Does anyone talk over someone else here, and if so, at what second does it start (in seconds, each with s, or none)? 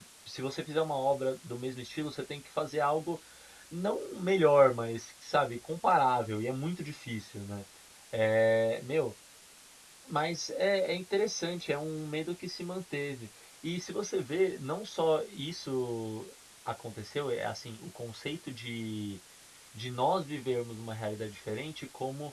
none